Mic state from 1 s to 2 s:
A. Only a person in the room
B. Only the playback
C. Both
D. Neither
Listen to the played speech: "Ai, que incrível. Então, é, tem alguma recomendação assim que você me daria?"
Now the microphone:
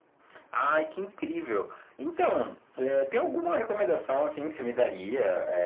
B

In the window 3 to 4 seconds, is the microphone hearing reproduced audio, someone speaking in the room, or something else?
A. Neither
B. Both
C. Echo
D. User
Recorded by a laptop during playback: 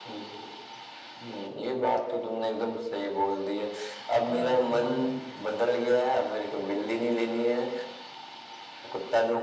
C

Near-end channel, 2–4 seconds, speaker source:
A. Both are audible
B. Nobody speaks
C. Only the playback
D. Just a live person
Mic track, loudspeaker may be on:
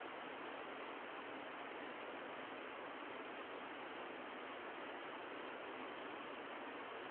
B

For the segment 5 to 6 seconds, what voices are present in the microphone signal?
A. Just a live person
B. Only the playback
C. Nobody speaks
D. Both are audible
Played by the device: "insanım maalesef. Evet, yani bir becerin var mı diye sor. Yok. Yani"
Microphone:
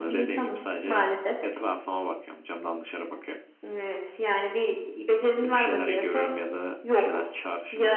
D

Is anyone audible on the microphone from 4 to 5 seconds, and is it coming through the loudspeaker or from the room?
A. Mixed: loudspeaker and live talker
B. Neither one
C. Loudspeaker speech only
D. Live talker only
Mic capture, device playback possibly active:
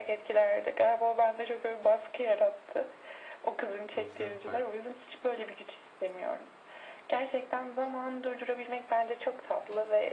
A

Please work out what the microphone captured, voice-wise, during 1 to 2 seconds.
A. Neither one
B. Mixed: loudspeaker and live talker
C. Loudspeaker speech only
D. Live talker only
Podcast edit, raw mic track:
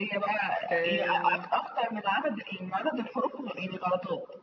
B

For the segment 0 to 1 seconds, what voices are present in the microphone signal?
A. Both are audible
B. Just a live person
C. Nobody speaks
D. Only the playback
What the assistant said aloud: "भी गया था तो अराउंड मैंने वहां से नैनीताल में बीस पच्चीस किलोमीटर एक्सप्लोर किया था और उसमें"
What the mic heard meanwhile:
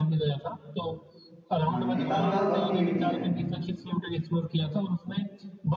D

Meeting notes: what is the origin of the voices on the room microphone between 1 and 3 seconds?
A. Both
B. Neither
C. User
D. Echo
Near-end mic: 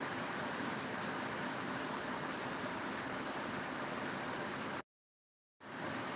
B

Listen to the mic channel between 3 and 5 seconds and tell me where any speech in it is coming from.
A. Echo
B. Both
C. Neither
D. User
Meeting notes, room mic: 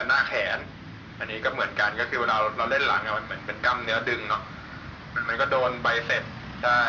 A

